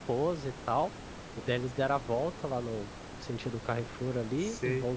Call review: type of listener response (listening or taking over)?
listening